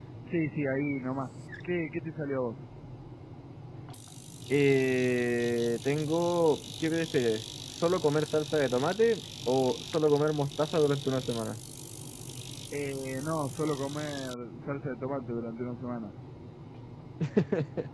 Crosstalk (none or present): none